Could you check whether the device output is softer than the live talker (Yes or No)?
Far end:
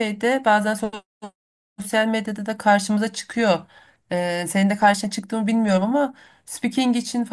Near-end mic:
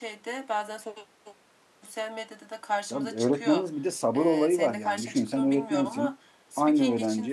Yes